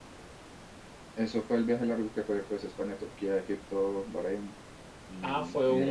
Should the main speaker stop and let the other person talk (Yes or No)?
Yes